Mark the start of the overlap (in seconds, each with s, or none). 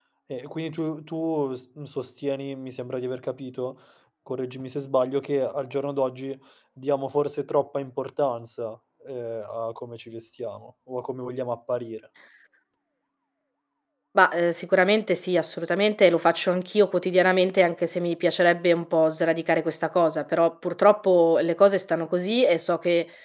none